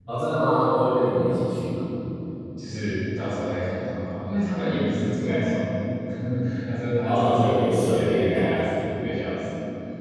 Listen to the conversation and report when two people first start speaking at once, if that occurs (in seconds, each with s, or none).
7.0 s